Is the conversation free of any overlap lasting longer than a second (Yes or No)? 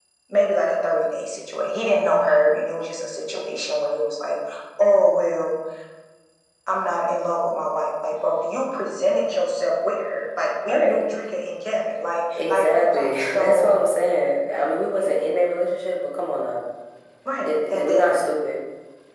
No